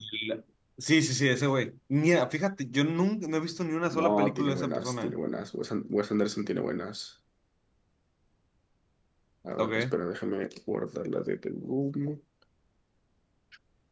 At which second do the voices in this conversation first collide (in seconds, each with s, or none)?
3.9 s